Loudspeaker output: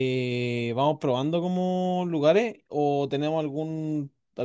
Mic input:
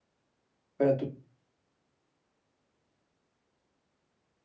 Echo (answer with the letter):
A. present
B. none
B